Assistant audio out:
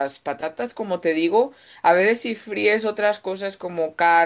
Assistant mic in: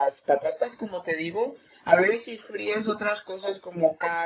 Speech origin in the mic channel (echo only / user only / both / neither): echo only